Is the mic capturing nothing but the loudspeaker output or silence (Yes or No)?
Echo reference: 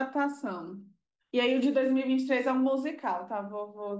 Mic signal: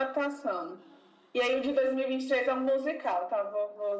Yes